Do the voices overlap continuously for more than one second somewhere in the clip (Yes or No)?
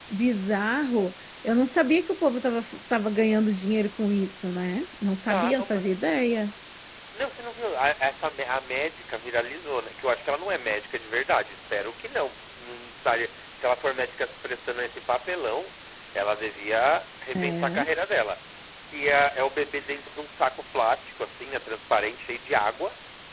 No